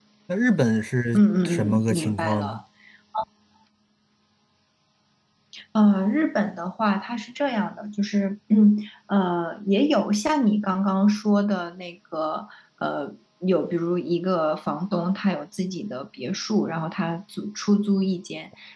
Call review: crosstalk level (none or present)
present